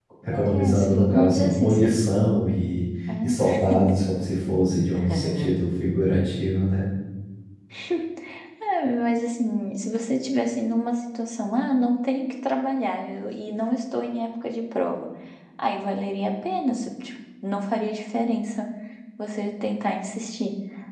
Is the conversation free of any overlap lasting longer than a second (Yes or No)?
No